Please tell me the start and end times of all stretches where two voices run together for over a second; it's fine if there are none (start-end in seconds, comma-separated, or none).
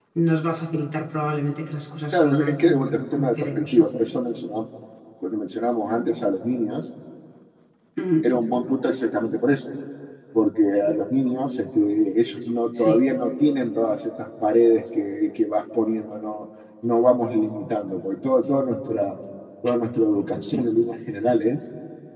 2.1-4.0